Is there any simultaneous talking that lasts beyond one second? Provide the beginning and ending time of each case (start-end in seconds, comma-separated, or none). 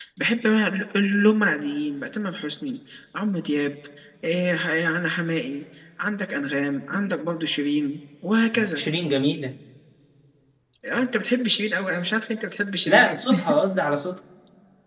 none